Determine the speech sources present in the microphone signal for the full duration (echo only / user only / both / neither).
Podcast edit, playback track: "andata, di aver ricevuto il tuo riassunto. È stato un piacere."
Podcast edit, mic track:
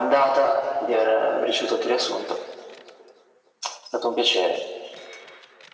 echo only